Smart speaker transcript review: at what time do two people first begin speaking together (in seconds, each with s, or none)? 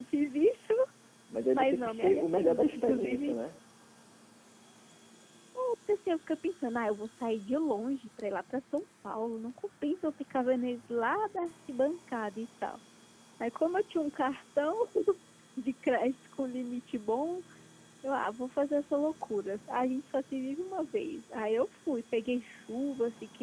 1.5 s